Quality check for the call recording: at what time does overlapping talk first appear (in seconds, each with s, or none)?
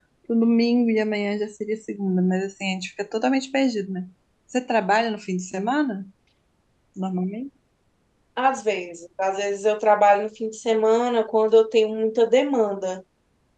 none